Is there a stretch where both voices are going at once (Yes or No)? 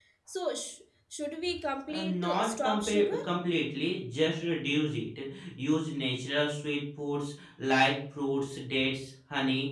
Yes